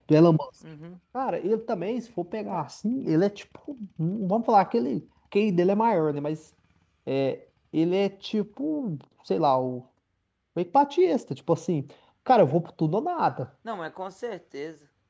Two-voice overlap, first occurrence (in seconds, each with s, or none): none